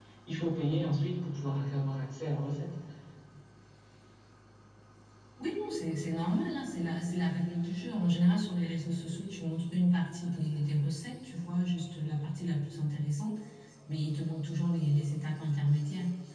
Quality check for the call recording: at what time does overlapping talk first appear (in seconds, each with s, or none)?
none